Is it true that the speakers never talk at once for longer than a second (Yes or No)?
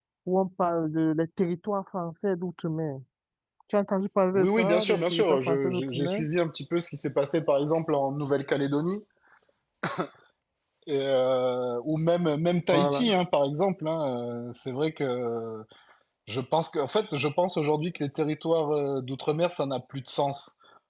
No